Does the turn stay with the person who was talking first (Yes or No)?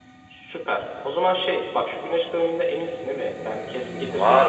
No